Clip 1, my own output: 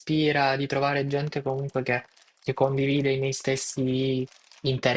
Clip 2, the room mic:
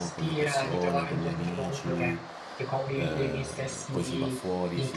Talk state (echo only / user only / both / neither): both